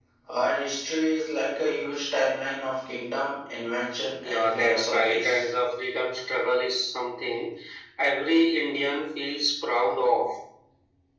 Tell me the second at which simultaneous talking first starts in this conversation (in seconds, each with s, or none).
4.2 s